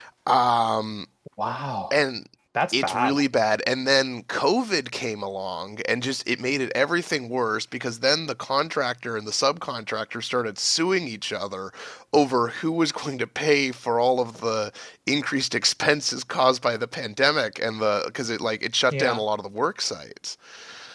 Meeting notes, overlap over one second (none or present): none